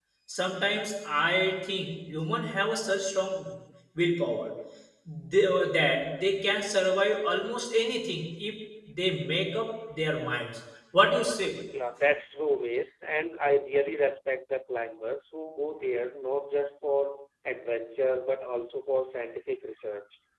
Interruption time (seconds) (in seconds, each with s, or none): none